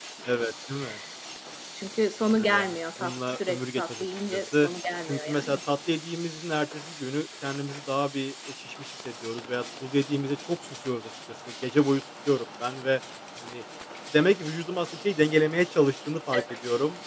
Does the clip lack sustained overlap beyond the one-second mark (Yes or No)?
No